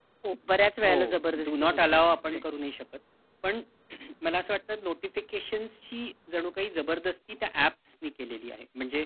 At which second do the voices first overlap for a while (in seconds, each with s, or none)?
0.8 s